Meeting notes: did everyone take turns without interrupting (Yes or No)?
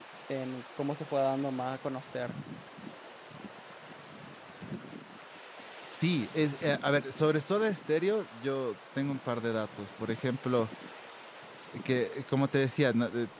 Yes